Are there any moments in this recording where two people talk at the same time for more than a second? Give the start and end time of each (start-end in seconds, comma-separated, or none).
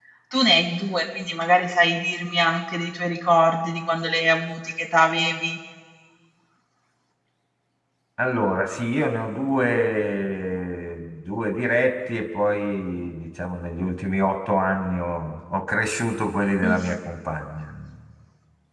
none